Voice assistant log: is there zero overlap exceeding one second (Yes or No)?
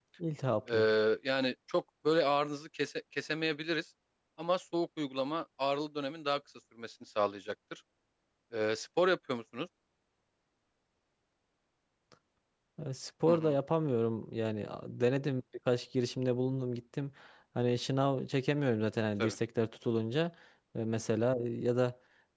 Yes